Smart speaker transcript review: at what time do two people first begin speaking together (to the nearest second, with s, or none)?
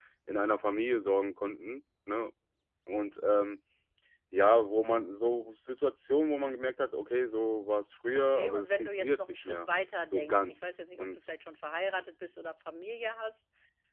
8 s